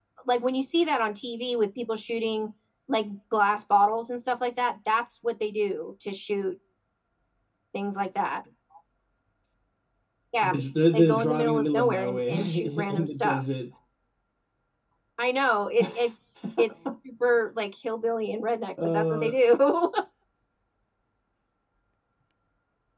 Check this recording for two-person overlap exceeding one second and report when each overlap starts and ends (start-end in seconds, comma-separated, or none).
10.9-13.4